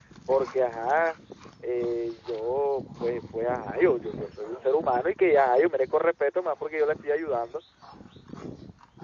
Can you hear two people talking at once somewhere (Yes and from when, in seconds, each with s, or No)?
No